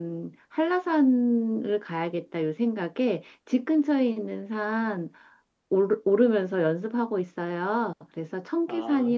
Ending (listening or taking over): listening